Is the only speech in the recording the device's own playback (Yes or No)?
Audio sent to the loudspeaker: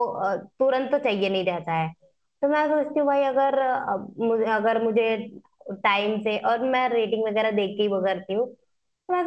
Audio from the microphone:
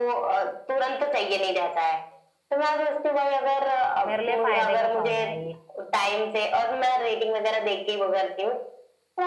No